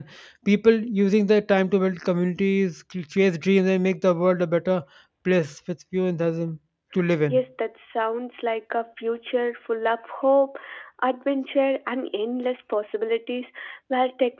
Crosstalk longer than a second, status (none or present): none